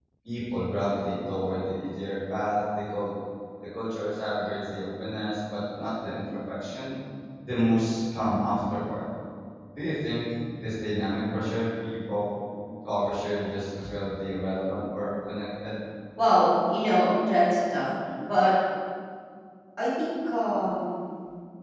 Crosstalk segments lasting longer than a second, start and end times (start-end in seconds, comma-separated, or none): none